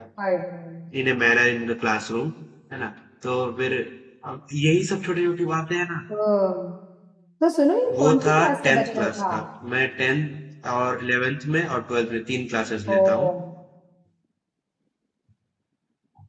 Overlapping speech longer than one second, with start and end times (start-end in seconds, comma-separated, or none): 8.0-9.2